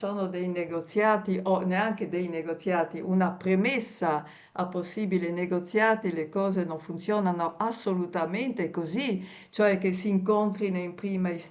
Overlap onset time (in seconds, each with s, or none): none